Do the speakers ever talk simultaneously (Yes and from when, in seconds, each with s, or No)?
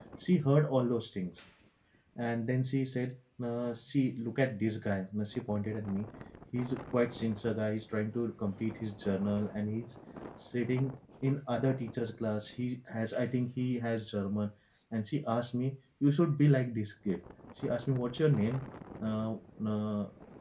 No